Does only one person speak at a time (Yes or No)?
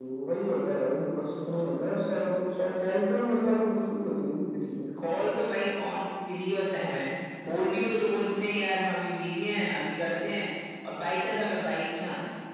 Yes